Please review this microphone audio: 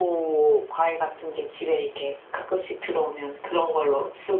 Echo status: present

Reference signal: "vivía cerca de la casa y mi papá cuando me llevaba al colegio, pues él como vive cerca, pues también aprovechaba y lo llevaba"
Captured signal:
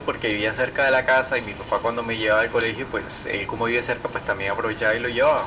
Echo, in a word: present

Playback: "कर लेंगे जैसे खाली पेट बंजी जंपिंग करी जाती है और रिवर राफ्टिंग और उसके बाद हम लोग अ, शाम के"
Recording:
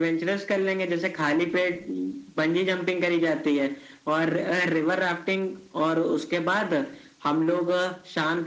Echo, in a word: present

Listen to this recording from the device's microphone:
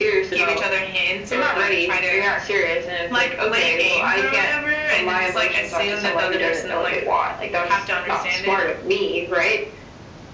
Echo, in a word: present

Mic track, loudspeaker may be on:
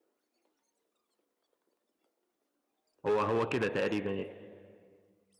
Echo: none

